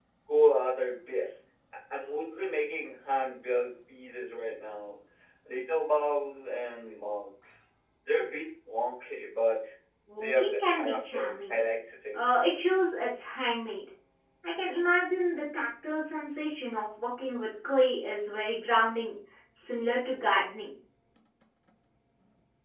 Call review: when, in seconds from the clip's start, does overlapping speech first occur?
10.2 s

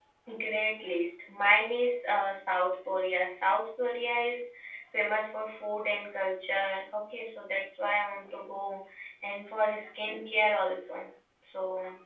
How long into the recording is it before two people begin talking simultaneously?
none

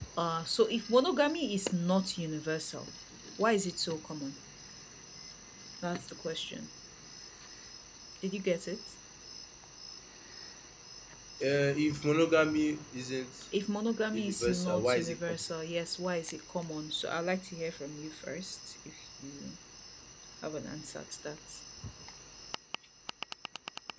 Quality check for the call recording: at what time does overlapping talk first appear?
14.1 s

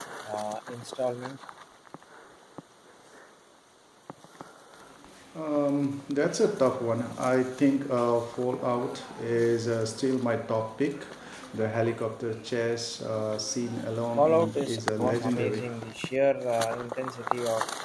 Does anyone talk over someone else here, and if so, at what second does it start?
14.2 s

